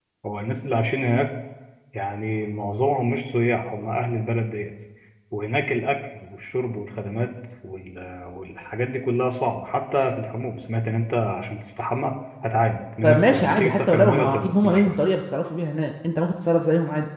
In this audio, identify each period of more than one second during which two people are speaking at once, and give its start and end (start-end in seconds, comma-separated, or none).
13.0-15.0